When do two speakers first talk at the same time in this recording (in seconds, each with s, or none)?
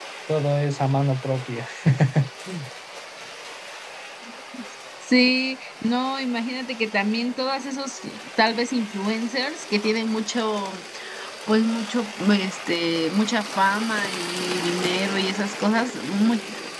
none